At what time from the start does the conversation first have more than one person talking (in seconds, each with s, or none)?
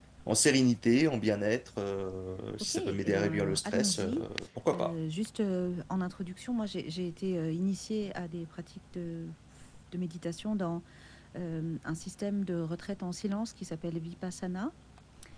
2.6 s